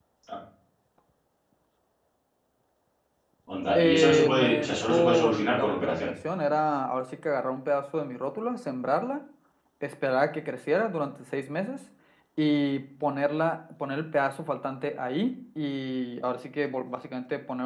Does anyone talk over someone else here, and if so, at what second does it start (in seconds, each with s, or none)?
3.8 s